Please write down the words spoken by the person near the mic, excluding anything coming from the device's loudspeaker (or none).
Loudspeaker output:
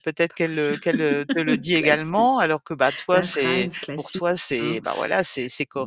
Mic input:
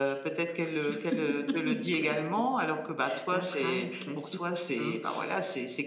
none